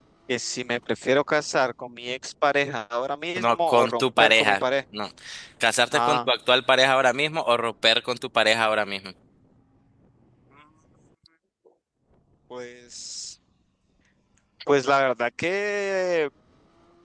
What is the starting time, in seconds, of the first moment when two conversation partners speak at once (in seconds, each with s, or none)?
3.4 s